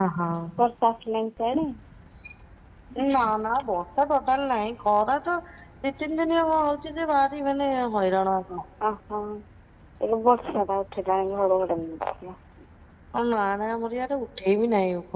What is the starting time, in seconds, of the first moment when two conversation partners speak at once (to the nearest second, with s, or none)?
none